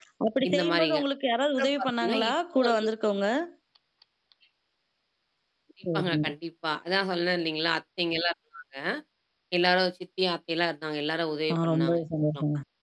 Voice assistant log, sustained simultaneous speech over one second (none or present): present